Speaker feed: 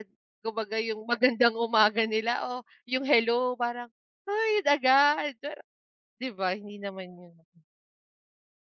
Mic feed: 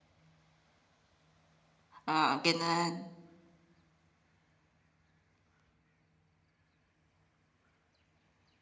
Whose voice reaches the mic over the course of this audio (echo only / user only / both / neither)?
user only